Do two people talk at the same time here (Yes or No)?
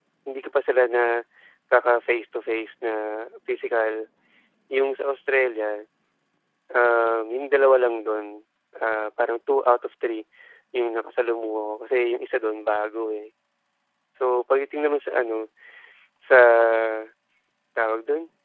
No